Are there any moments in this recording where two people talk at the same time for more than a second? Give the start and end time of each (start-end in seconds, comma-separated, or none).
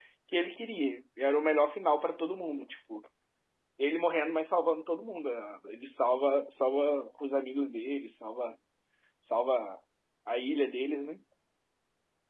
none